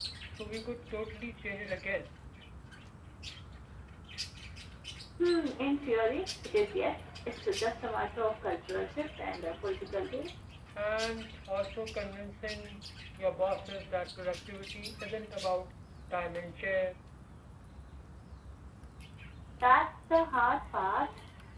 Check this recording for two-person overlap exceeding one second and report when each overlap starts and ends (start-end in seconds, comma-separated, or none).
none